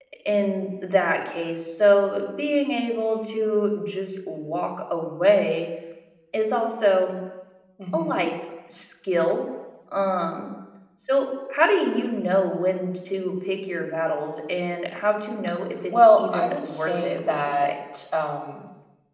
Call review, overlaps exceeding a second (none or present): present